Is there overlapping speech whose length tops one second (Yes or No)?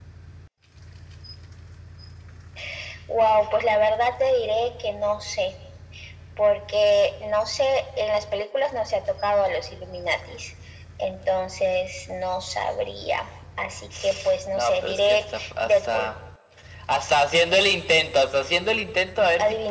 Yes